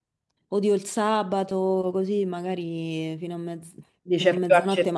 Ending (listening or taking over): taking over